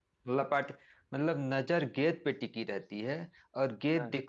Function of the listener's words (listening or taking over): listening